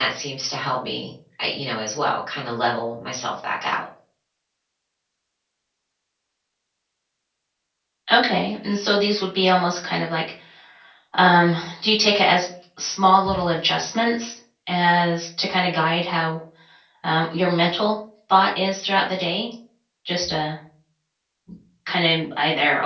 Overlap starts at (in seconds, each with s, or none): none